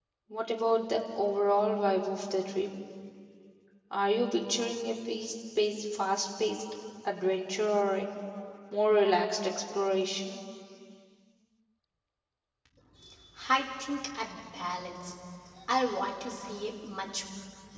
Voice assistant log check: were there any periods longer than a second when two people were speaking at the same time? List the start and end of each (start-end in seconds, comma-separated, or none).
none